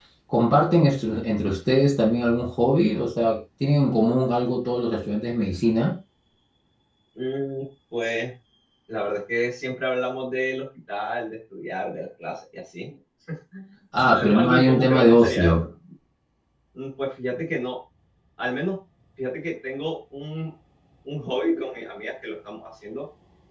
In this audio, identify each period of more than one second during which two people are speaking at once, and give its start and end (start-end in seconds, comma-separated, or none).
14.0-15.6